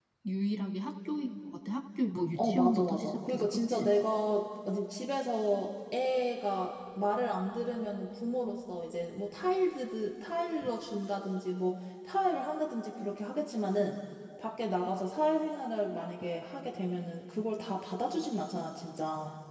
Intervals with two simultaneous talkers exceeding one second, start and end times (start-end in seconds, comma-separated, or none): 2.4-3.9